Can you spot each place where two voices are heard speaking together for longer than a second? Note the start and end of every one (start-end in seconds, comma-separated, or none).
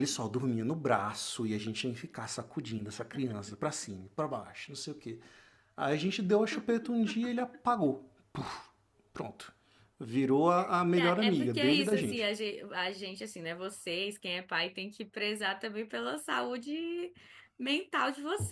11.0-12.2